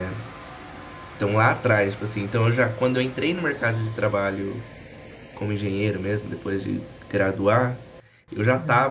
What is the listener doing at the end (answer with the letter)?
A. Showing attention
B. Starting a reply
A